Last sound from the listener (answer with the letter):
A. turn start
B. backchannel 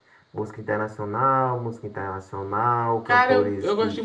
A